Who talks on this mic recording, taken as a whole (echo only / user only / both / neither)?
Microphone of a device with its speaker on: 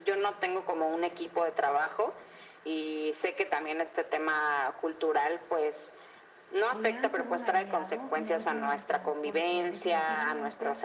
both